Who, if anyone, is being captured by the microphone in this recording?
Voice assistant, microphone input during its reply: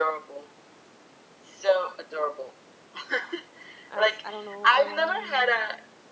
both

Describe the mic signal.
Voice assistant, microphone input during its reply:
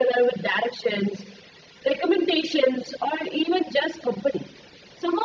echo only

